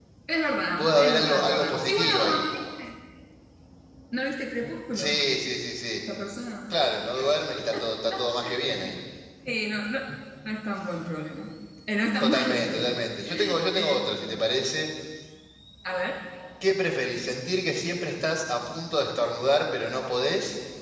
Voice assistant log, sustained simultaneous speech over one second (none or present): present